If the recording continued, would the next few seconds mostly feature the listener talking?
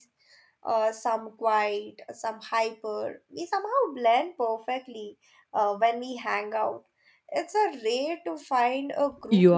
Yes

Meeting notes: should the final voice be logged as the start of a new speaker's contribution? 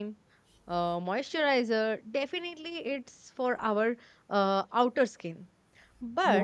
No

